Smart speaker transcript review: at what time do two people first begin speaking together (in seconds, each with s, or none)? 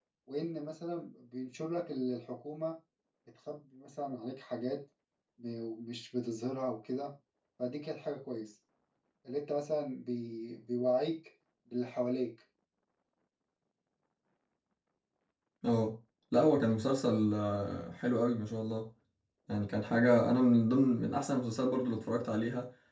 none